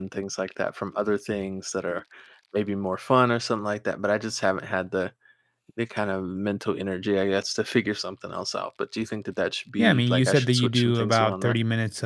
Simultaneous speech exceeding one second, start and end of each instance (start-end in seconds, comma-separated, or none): 9.8-11.6